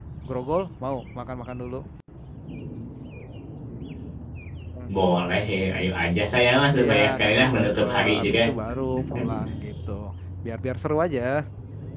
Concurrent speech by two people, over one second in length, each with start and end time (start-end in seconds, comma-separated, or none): 6.8-8.4